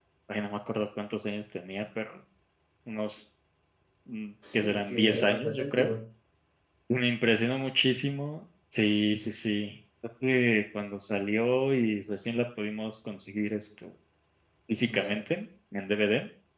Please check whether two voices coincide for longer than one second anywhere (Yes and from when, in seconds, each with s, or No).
Yes, from 4.5 s